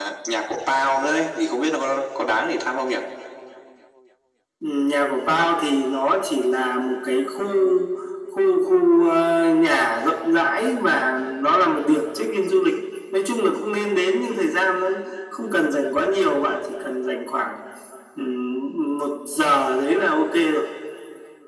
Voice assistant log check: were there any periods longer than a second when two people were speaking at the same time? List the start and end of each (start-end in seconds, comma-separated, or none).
none